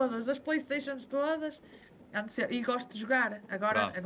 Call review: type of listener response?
listening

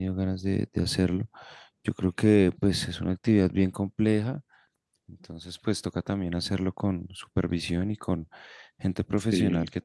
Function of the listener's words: listening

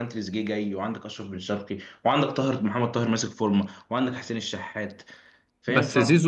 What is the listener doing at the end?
taking over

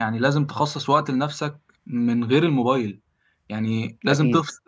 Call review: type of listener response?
listening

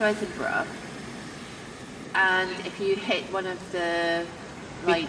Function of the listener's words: taking over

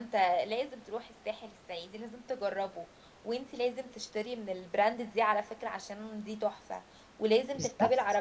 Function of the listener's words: listening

